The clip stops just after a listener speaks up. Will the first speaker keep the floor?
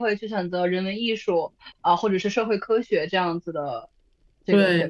No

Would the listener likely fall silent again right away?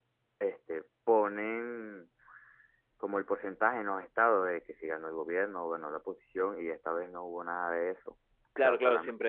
No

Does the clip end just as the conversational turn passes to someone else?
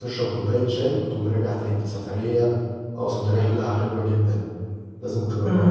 Yes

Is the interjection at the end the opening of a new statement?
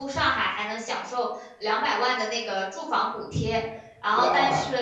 Yes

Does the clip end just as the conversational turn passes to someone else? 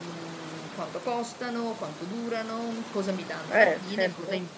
No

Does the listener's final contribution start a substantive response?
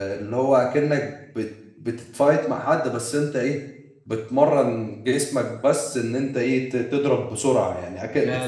Yes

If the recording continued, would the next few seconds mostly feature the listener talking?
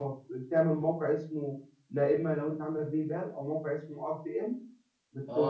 Yes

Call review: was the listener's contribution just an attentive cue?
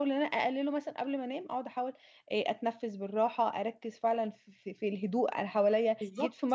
Yes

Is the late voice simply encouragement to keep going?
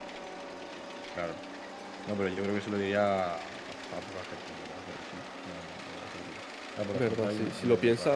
No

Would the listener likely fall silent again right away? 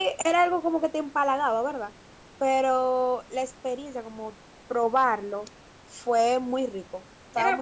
No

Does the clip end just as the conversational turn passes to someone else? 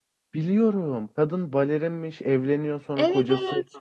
No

